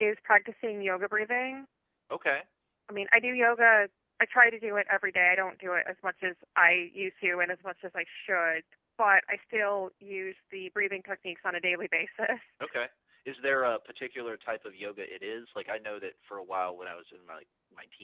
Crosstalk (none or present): none